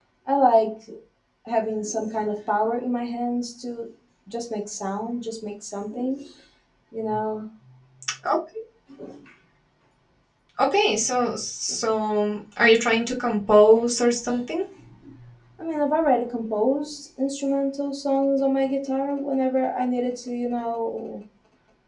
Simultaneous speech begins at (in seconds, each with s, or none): none